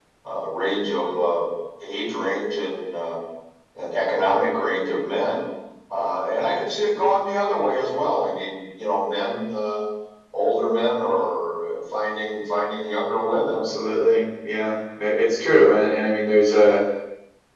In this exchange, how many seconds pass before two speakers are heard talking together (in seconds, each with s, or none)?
none